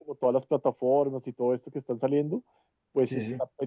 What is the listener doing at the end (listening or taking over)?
listening